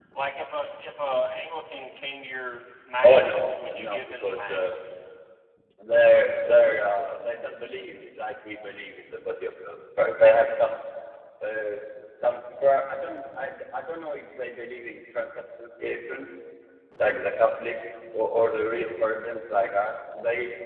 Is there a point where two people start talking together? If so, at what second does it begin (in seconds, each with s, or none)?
3.0 s